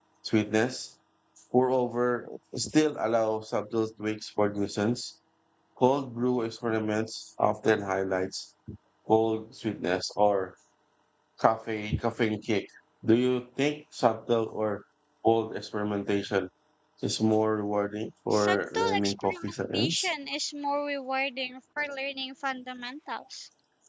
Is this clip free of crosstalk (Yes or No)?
No